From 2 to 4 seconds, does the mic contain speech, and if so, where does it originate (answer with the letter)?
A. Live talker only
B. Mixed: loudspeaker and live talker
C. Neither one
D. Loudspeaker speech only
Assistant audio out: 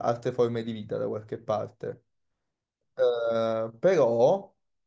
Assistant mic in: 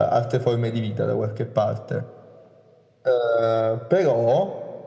D